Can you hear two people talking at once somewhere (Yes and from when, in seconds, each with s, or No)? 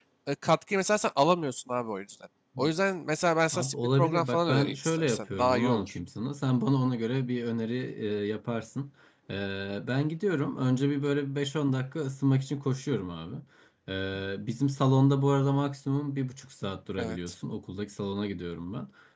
Yes, from 3.5 s